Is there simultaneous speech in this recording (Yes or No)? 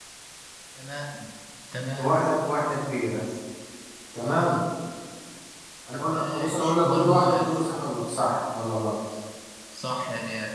Yes